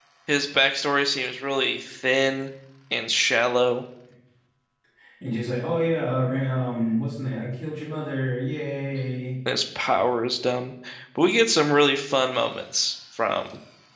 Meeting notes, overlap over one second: none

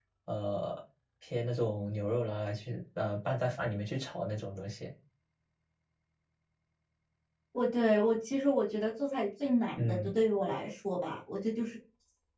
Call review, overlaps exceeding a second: none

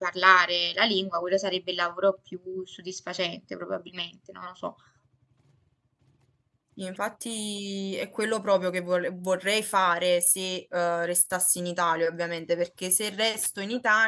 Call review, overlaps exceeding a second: none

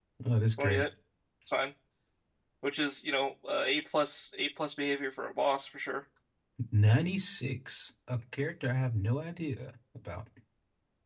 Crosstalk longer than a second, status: none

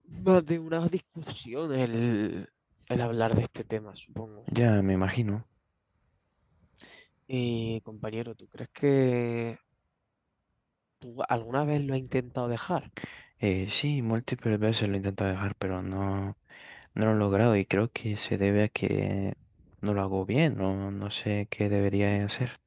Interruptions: none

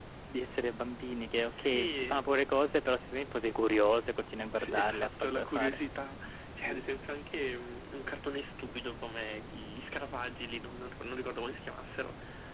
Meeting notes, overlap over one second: present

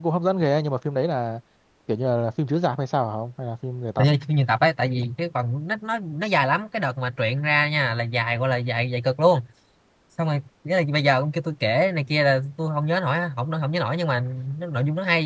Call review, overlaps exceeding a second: none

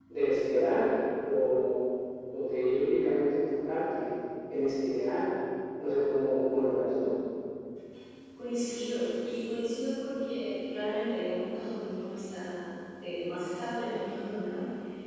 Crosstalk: none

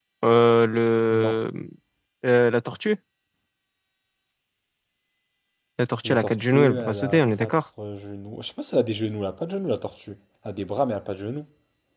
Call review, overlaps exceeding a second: present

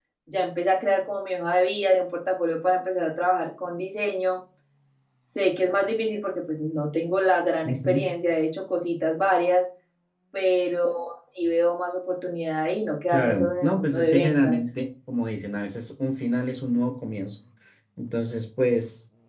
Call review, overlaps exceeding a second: present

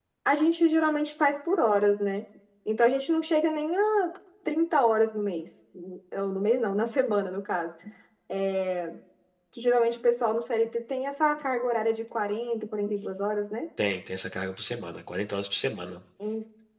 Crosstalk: none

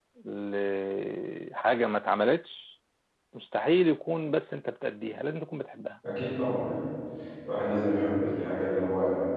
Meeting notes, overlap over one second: none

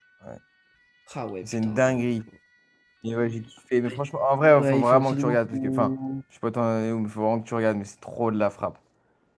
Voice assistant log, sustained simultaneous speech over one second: present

